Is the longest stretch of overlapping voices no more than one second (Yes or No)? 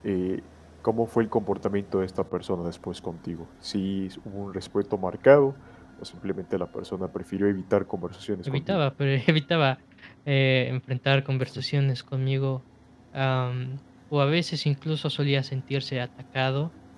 Yes